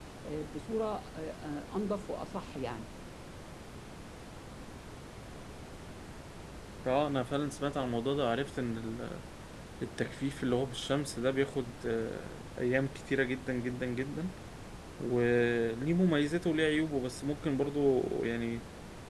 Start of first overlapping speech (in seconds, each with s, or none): none